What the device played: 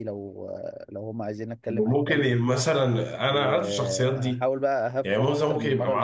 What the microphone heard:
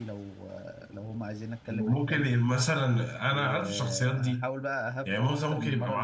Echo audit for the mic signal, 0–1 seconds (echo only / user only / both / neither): echo only